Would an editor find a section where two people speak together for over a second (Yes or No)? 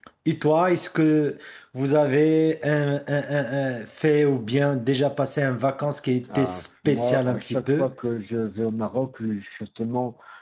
Yes